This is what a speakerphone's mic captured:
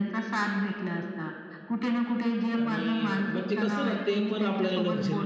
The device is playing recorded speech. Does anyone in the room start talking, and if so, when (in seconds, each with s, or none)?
2.6 s